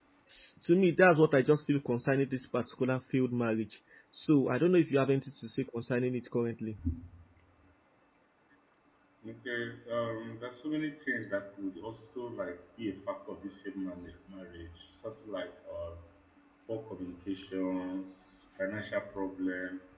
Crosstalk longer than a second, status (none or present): none